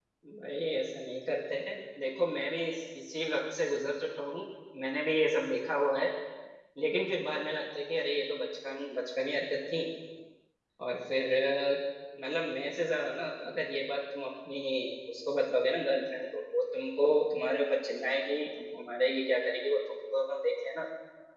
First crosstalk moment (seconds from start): none

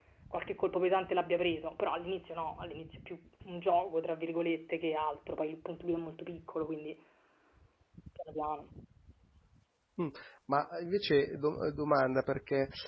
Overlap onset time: none

